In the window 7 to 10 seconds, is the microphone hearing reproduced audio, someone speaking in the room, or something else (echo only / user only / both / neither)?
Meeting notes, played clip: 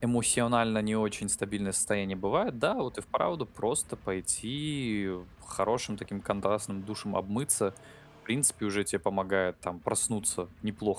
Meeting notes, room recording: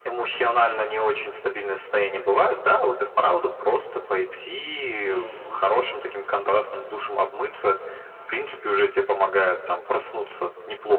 echo only